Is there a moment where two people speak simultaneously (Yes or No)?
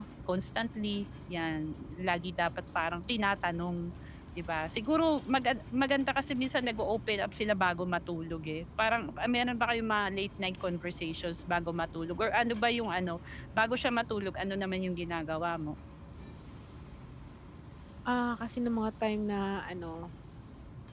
No